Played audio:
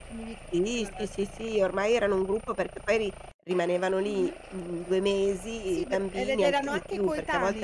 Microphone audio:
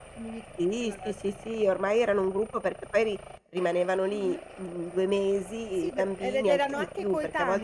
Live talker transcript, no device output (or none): none